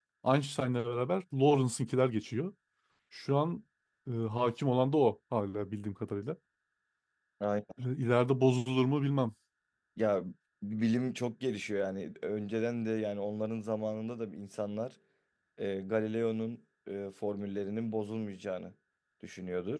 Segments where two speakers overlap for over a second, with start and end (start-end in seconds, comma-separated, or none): none